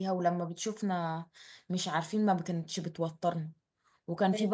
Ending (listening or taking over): listening